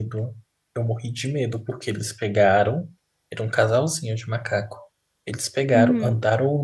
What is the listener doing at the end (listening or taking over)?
listening